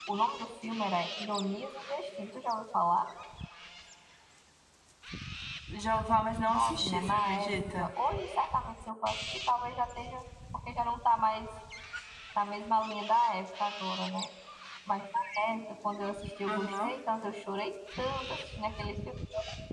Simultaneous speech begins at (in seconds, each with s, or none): 6.5 s